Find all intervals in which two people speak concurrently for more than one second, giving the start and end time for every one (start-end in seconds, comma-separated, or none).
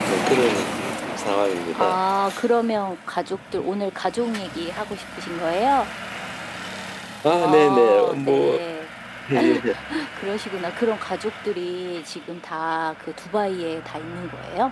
7.3-8.6